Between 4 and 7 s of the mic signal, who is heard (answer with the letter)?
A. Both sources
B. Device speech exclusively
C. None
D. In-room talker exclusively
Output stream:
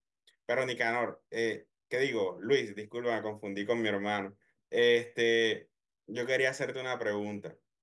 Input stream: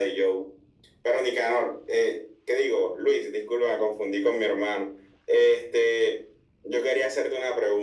B